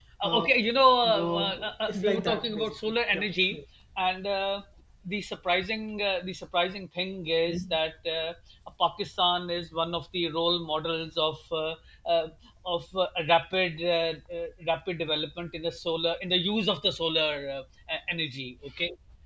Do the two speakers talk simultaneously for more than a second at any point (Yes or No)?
Yes